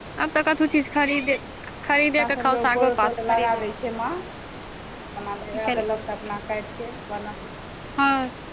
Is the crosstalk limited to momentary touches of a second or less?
No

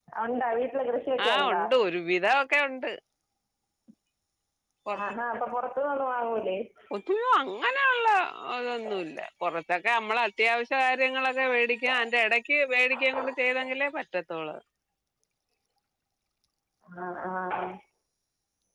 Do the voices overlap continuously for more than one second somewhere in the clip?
No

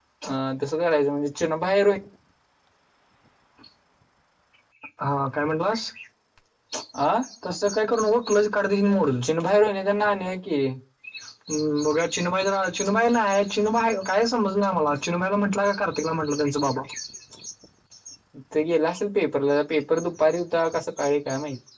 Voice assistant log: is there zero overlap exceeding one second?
Yes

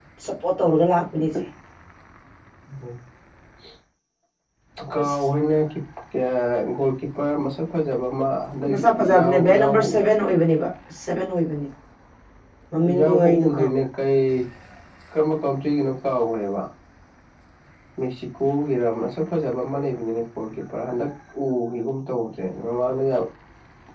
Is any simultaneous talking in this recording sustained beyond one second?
Yes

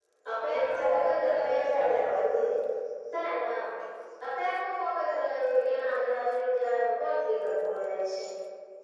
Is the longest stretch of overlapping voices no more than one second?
No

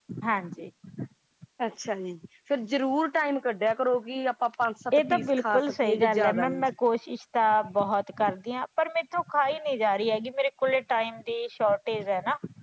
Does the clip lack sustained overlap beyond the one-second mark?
No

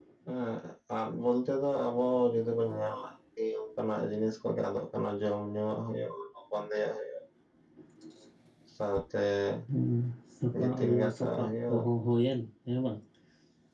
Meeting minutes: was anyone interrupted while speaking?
Yes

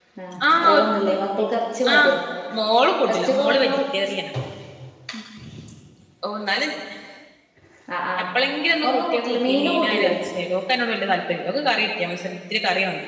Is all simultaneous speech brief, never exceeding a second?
No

